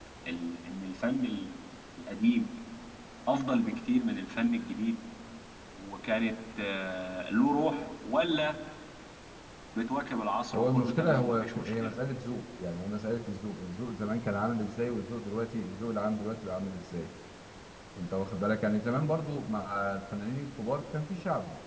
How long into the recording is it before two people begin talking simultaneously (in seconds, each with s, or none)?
10.5 s